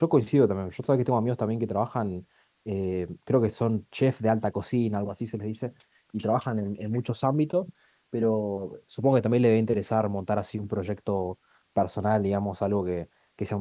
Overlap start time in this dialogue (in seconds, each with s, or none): none